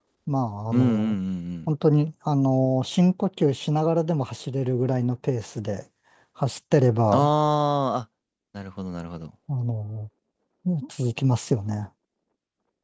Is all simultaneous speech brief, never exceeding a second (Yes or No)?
Yes